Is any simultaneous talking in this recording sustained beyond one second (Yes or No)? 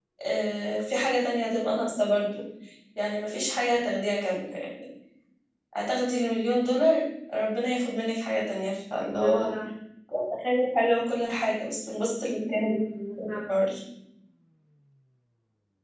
No